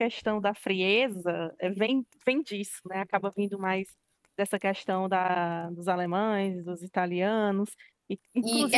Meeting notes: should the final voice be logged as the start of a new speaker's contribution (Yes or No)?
Yes